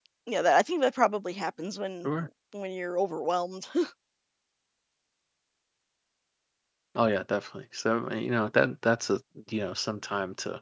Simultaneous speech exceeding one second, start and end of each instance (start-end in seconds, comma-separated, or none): none